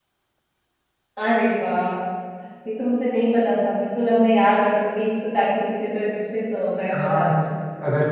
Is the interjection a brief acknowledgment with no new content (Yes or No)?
No